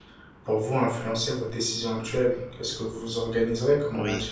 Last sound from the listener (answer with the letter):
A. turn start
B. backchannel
B